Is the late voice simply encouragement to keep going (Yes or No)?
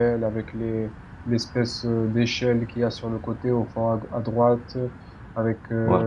Yes